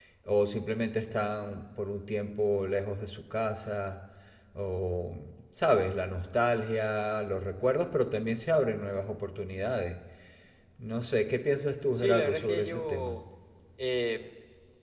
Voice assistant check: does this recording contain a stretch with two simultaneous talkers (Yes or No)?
Yes